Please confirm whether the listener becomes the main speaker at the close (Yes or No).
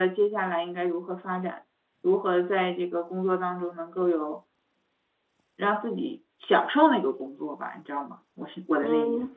Yes